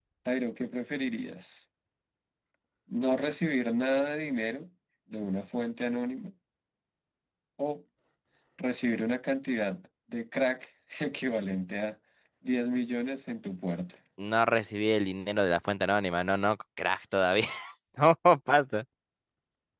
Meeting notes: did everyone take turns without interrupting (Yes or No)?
Yes